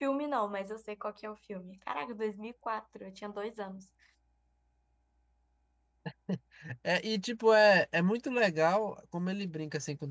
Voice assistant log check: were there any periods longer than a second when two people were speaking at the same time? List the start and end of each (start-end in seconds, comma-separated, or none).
none